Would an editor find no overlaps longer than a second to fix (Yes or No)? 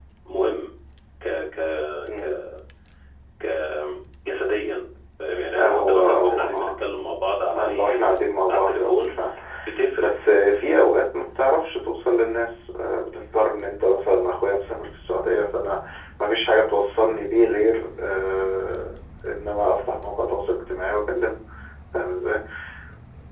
No